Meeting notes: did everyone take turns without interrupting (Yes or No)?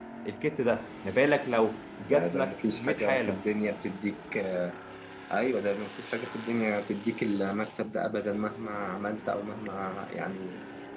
No